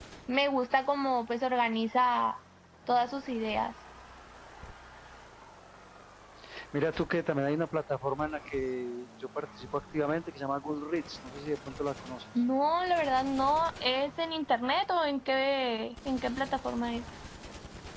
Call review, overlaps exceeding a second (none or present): none